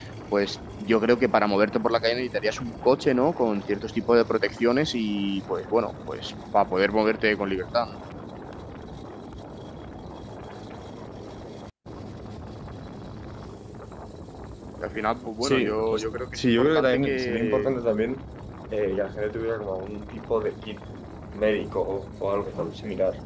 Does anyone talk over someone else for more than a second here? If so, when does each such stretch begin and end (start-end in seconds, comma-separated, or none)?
15.4-17.8